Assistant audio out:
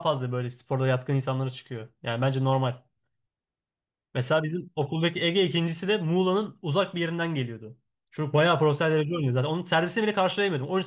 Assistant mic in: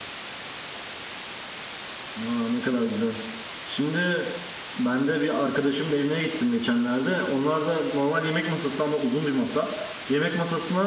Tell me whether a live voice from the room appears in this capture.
Yes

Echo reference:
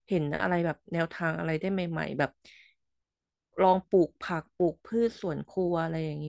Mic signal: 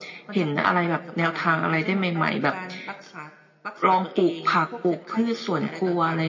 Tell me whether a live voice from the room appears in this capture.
Yes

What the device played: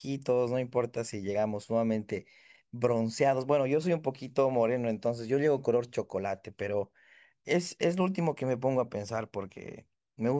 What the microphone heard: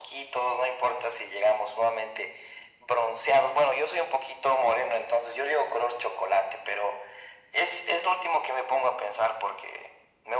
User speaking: No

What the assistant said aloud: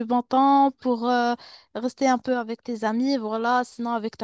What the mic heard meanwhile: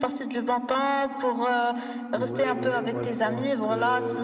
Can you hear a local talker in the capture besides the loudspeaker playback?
Yes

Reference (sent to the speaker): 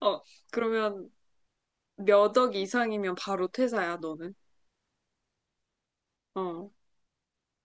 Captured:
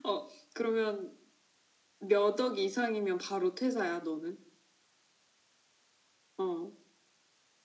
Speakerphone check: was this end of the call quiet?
Yes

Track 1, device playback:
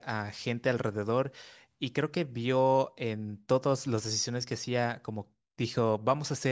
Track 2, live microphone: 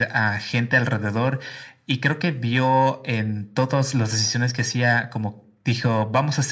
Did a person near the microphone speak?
No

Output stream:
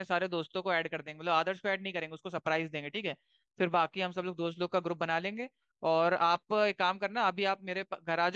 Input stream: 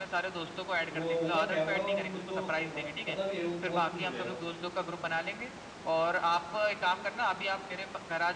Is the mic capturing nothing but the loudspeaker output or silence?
No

